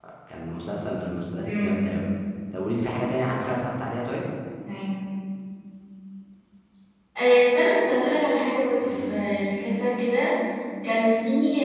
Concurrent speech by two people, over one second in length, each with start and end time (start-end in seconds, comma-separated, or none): none